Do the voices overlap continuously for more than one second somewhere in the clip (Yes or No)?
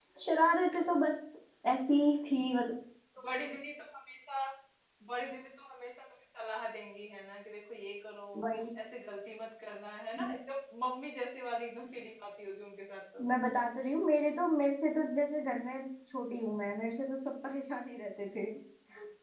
No